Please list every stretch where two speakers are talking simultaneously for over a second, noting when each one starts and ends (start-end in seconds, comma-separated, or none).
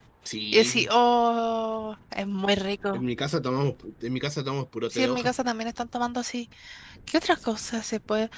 none